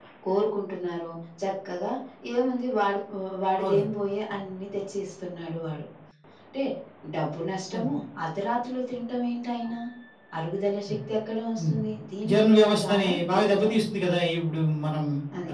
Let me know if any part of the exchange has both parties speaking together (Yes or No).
Yes